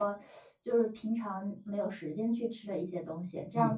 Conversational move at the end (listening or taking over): taking over